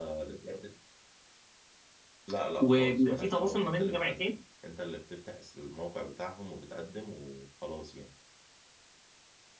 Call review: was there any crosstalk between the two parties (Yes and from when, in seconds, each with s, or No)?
Yes, from 2.6 s